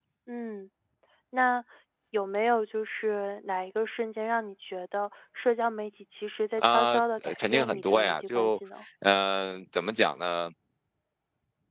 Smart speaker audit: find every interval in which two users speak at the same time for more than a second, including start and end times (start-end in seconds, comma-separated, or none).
6.6-8.6